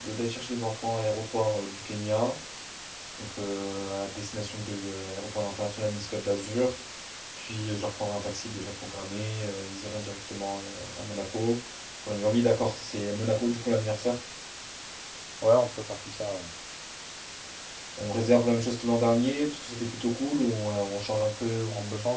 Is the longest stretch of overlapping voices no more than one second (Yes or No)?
Yes